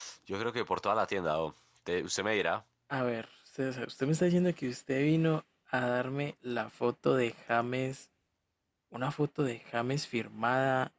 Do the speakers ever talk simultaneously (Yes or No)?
No